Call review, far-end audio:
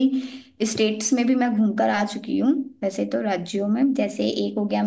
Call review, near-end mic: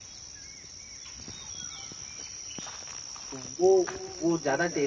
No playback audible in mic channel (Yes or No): Yes